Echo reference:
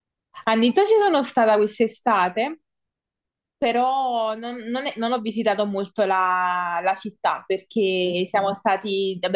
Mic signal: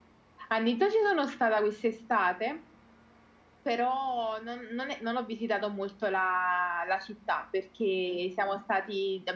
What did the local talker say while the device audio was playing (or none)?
none